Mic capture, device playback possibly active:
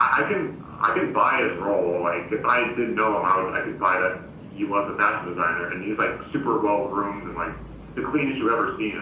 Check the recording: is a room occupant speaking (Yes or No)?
No